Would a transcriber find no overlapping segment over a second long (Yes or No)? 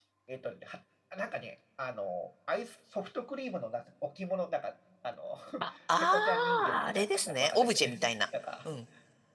No